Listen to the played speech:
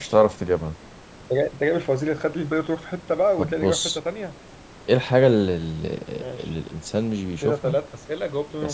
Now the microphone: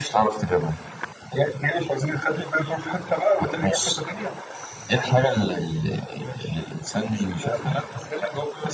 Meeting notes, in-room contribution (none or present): none